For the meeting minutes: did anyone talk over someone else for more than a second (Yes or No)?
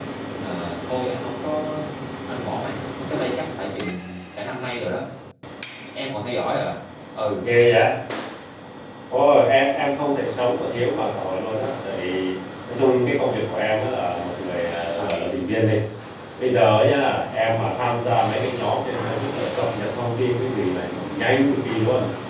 No